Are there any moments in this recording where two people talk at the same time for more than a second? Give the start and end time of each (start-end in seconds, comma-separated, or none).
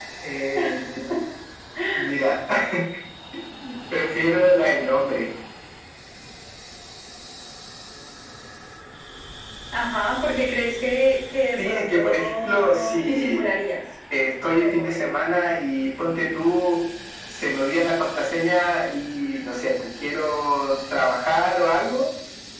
11.6-13.5